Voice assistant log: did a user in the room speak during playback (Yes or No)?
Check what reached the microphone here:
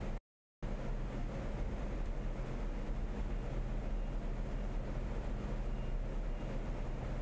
No